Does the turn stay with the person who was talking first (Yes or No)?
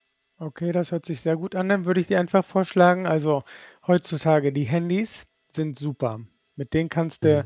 Yes